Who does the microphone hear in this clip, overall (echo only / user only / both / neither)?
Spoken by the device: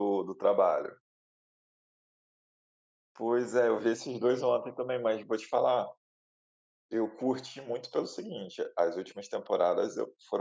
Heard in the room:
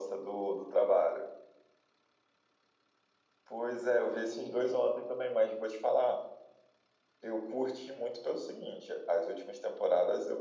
echo only